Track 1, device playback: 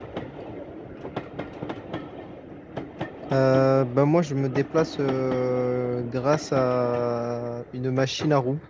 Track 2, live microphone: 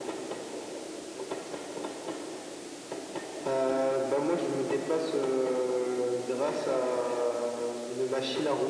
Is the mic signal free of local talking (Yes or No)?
Yes